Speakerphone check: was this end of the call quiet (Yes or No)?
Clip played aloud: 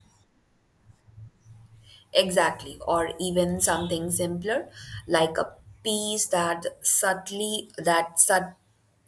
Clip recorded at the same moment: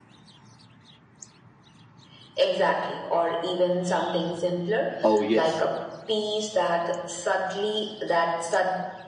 No